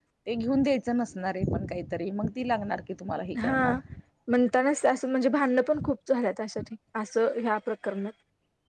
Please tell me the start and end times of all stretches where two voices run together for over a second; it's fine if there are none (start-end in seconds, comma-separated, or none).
none